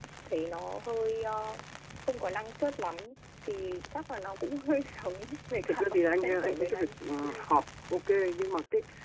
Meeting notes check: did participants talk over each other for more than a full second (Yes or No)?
Yes